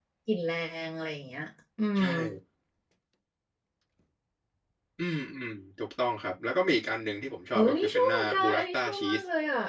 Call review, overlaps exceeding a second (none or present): present